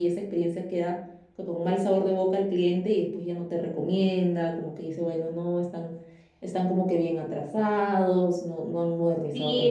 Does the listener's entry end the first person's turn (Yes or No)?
Yes